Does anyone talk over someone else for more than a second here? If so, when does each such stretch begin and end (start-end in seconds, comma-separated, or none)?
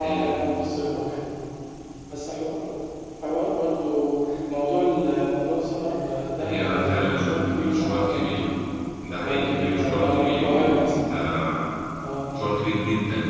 6.4-8.3, 9.2-10.9